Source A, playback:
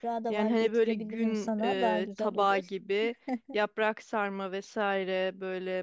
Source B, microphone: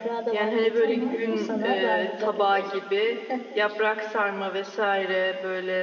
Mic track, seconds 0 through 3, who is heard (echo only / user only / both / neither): both